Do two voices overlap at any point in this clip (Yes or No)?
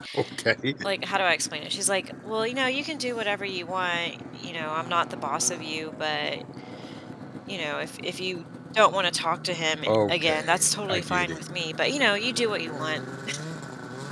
Yes